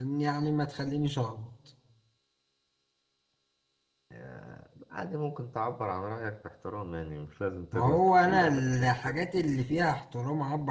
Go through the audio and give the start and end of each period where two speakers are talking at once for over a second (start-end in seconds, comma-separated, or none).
7.7-9.1